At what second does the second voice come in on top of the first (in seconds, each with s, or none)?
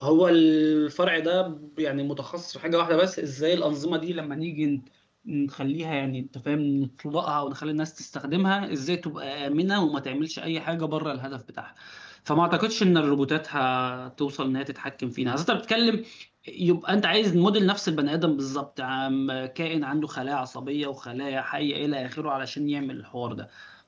none